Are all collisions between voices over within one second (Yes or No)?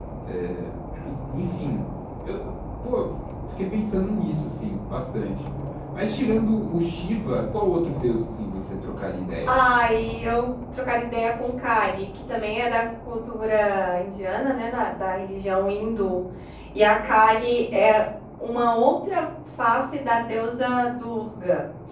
Yes